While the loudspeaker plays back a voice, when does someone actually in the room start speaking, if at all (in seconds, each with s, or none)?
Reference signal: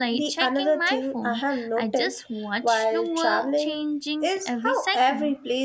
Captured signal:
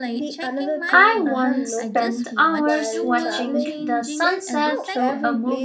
0.9 s